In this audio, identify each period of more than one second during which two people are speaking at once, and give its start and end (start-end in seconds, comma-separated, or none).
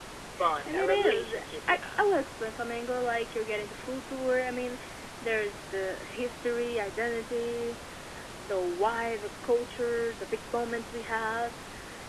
0.7-2.0